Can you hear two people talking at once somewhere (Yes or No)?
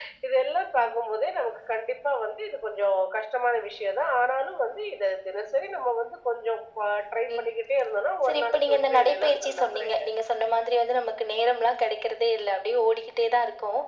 Yes